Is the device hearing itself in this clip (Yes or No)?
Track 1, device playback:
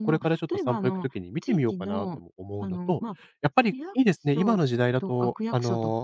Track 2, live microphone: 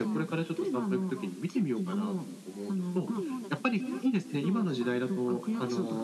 Yes